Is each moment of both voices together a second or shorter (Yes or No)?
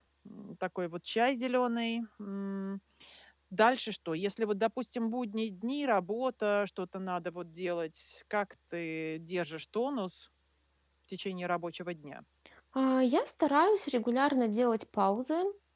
Yes